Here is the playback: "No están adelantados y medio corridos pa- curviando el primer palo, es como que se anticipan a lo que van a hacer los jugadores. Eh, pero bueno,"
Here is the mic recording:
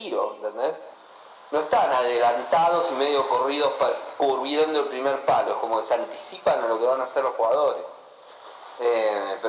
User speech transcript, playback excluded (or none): none